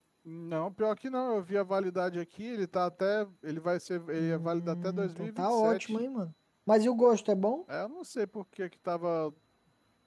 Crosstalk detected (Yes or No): Yes